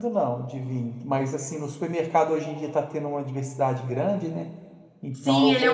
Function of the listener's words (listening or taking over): taking over